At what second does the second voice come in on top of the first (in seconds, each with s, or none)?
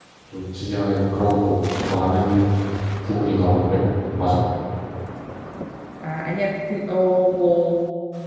none